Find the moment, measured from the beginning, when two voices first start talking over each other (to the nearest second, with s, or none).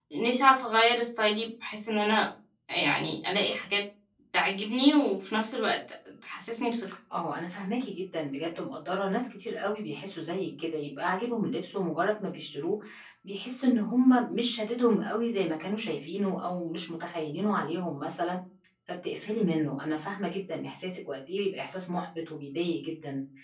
none